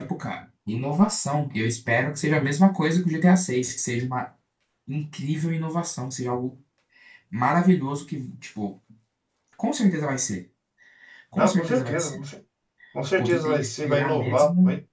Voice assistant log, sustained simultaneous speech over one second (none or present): present